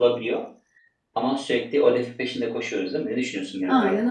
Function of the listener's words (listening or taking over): taking over